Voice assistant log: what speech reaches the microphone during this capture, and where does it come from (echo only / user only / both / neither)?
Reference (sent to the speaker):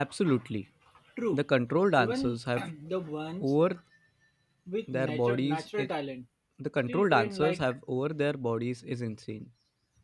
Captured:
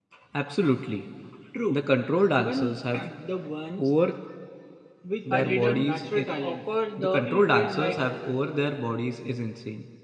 both